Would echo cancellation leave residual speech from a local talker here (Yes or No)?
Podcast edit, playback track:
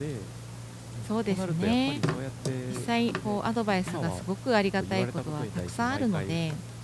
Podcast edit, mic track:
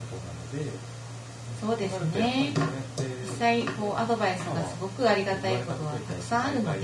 No